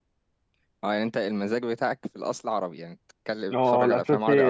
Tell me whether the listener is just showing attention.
No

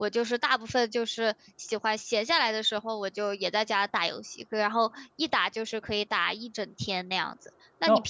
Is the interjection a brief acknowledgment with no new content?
Yes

